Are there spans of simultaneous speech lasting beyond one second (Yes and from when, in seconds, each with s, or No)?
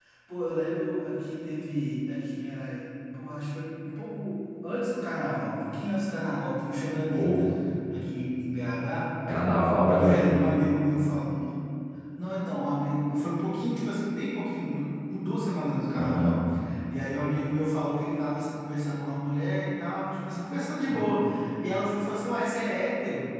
No